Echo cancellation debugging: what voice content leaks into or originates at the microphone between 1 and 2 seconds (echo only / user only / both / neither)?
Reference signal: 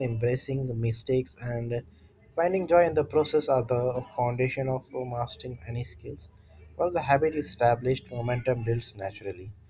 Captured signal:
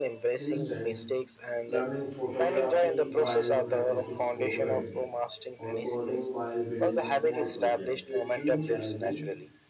both